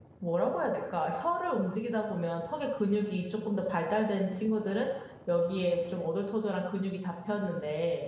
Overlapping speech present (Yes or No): No